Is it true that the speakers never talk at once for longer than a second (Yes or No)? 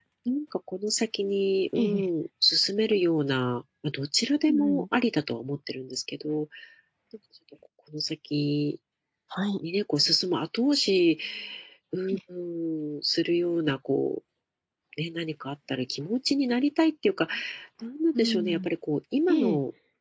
Yes